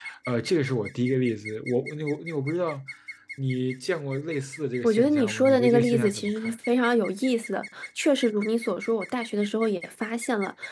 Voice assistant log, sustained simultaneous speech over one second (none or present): present